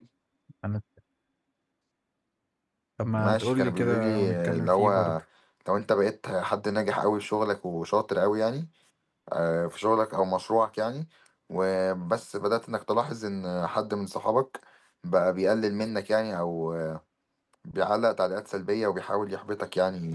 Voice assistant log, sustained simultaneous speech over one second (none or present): present